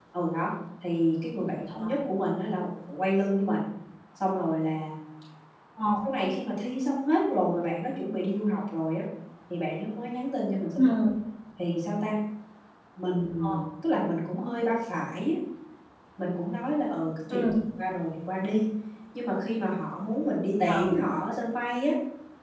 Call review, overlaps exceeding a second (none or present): none